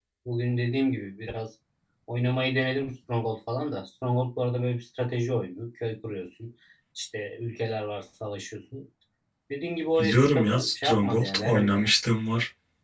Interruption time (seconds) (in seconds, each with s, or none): 10.0 s